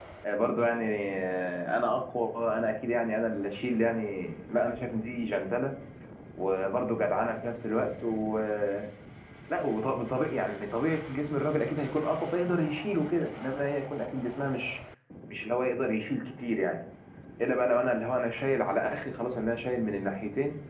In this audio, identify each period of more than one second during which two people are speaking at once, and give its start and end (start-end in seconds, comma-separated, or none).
none